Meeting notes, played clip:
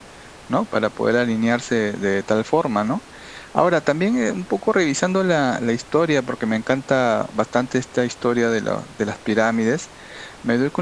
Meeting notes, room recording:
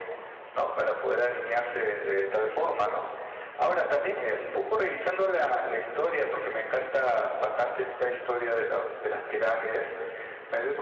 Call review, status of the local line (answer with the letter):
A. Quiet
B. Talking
A